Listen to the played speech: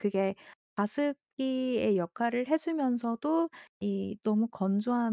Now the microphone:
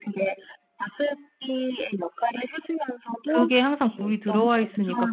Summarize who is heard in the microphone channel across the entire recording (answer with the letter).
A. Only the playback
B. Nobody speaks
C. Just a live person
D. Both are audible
D